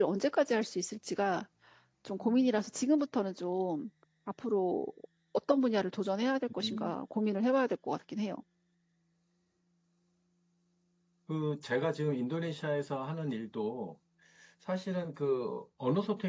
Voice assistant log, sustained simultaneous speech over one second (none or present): none